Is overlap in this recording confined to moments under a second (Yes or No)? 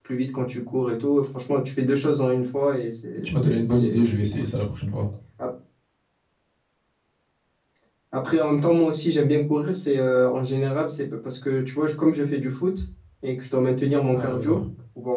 No